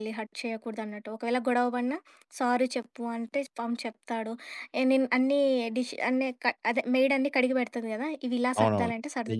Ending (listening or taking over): taking over